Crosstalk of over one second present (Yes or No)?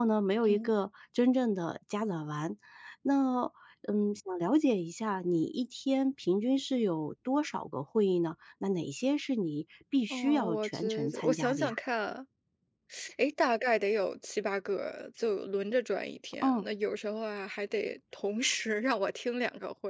Yes